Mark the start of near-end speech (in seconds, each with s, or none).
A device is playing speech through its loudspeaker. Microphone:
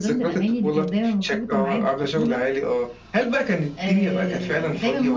none